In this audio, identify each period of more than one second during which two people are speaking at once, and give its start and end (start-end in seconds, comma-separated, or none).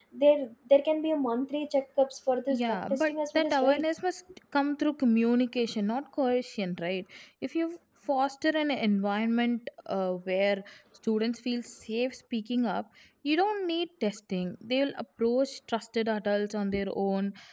2.5-3.8